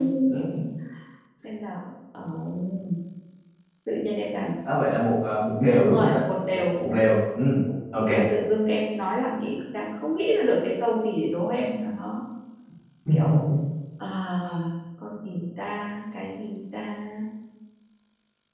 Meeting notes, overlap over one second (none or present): none